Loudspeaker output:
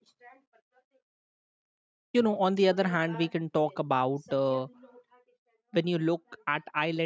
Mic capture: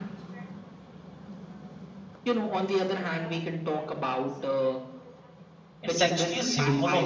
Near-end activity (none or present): present